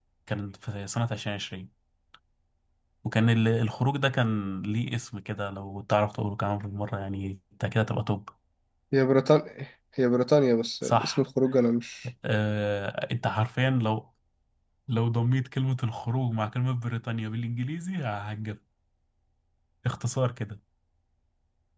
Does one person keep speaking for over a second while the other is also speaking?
No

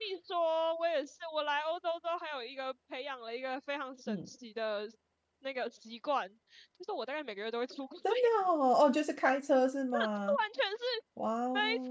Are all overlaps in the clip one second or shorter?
Yes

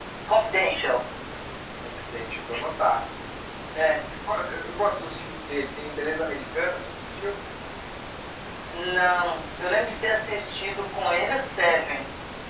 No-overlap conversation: Yes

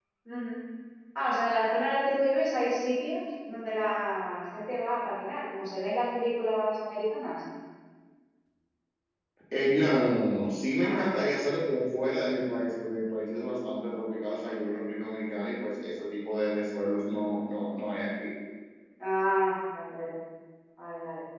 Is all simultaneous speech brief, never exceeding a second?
Yes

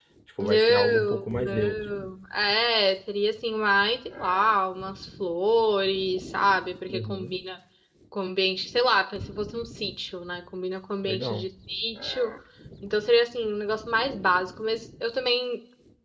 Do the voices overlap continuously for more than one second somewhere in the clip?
Yes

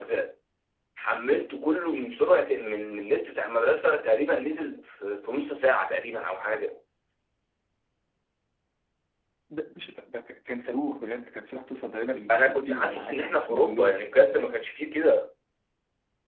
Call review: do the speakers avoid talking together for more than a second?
No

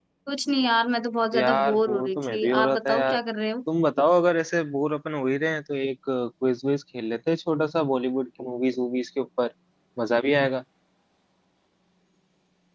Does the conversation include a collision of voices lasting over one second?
Yes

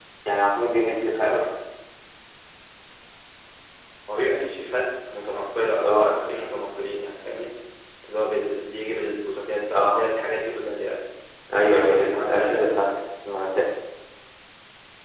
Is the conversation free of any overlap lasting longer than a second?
No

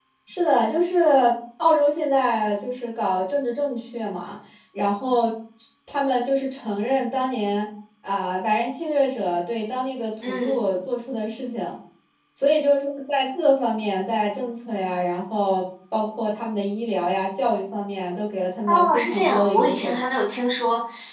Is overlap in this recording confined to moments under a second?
No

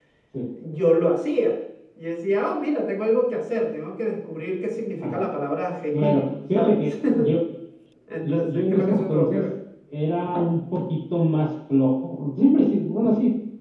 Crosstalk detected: Yes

